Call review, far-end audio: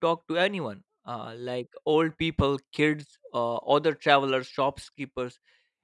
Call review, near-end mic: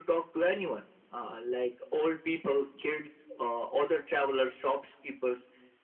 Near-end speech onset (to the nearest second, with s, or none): none